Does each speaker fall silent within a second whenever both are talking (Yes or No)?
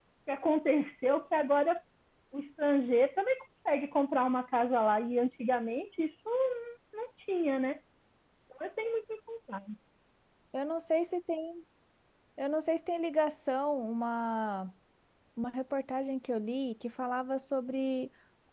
Yes